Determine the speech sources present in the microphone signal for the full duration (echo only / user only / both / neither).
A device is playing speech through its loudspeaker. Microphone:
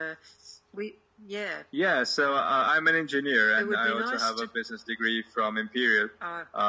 echo only